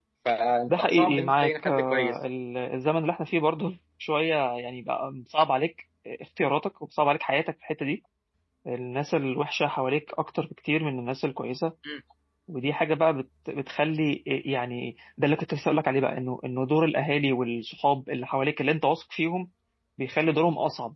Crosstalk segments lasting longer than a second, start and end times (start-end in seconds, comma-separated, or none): 0.7-2.2